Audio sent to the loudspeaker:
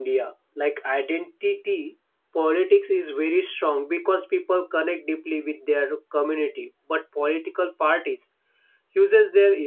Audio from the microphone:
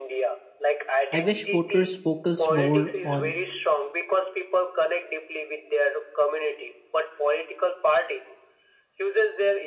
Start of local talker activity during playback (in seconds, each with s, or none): 1.1 s